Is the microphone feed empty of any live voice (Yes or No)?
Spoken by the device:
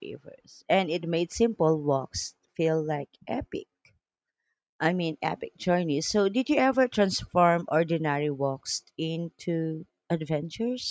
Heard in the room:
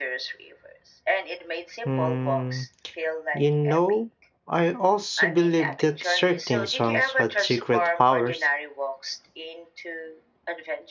No